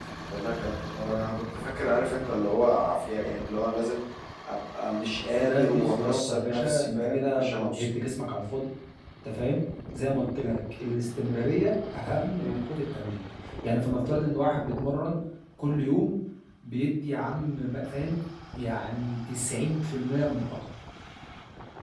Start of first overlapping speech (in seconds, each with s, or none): 5.4 s